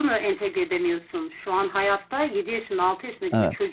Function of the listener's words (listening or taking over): listening